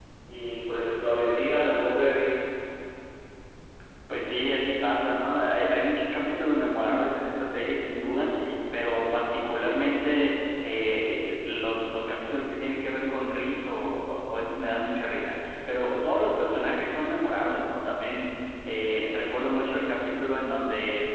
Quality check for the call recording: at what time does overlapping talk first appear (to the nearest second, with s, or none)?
none